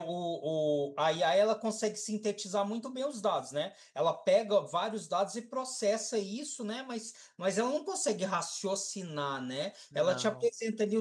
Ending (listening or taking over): listening